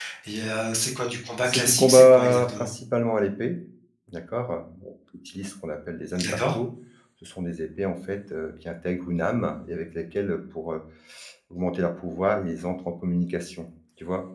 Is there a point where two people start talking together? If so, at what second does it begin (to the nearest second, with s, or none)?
1 s